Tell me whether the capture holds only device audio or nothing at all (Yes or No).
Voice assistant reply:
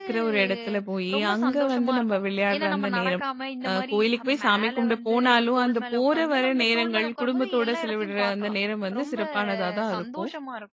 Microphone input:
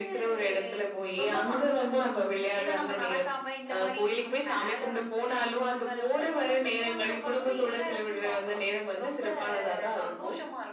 Yes